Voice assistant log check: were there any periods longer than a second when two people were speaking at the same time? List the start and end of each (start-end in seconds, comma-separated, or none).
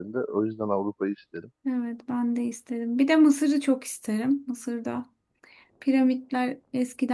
none